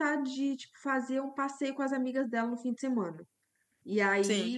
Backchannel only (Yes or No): Yes